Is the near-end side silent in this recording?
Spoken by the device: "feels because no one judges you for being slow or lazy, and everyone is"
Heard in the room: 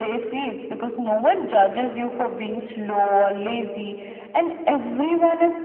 Yes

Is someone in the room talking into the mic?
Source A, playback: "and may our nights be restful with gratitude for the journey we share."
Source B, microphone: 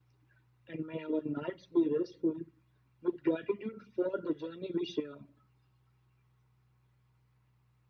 No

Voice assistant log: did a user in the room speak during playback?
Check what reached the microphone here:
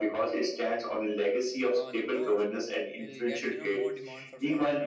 Yes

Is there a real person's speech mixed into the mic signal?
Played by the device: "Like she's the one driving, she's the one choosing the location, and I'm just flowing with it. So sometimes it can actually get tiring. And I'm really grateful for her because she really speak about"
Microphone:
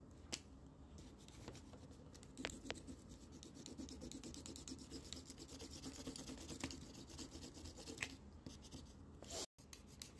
No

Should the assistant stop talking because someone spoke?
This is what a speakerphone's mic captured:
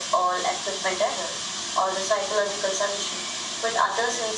No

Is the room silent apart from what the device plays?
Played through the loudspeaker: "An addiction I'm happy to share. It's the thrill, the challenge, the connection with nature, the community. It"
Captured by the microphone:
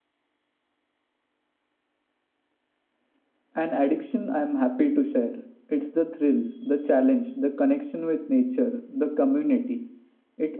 Yes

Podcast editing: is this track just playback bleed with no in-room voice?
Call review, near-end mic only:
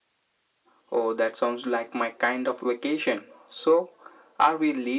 Yes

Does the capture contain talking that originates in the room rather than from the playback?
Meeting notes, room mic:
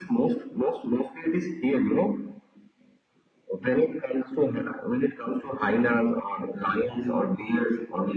No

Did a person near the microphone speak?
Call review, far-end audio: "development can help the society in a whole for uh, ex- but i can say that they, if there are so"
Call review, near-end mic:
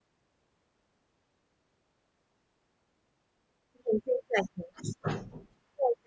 Yes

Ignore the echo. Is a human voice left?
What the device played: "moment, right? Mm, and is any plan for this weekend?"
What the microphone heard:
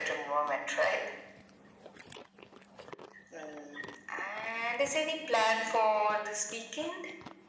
No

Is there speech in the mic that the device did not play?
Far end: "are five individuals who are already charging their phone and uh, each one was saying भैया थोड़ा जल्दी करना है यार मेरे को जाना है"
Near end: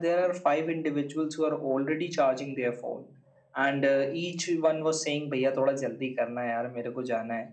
No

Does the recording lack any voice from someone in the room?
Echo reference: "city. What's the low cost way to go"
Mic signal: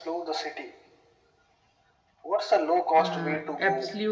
No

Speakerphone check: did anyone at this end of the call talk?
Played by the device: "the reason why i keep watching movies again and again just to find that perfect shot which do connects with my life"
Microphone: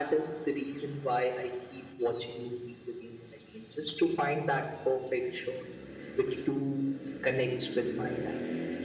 No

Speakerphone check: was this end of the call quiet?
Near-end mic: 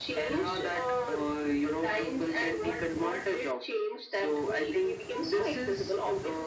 Yes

